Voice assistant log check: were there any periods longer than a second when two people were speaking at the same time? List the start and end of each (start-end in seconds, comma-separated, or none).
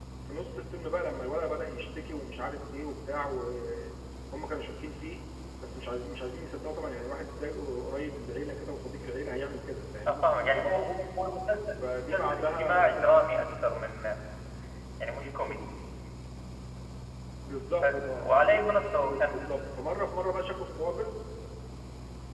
11.8-13.2